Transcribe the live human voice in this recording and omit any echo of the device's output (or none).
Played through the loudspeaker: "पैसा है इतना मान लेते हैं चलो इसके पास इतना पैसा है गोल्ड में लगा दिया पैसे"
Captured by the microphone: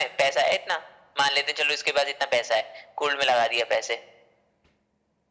none